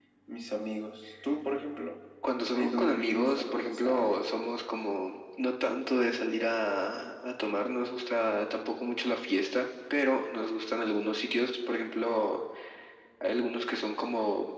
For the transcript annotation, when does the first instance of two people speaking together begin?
2.5 s

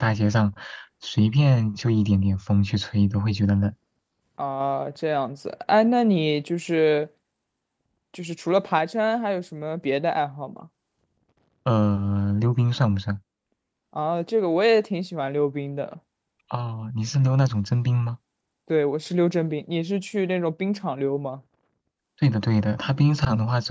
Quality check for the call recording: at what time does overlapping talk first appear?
none

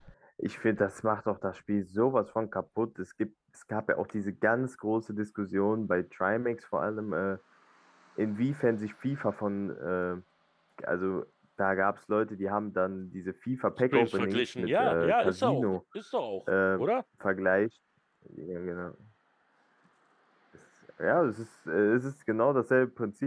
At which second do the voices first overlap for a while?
13.9 s

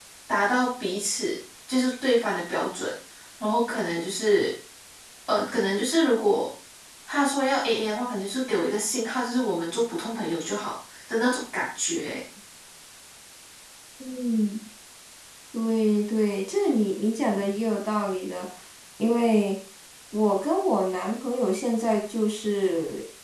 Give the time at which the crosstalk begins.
none

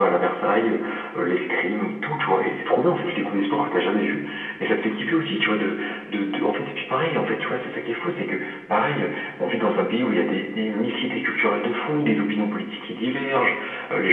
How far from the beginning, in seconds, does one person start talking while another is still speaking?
none

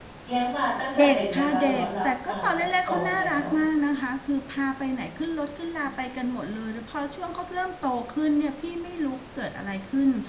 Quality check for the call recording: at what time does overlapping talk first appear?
1.0 s

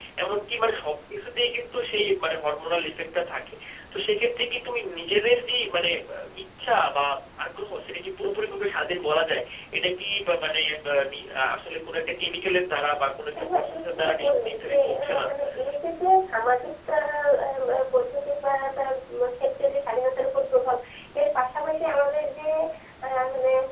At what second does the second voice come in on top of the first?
13.4 s

